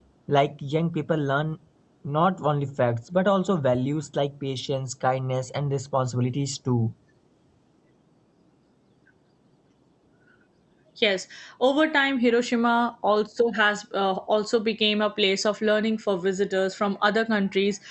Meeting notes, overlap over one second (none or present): none